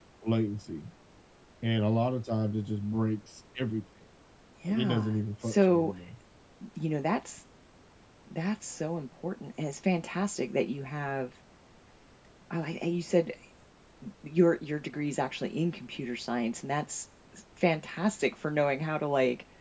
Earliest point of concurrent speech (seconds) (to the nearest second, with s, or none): 5 s